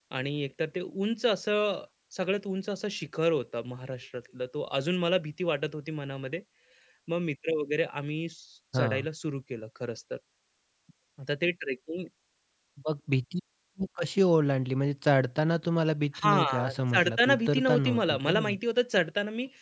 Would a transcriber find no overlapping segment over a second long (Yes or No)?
No